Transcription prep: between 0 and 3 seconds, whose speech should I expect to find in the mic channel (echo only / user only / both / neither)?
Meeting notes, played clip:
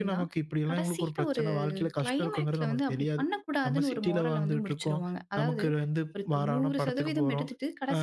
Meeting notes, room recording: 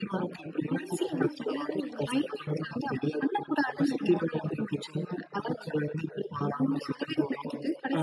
both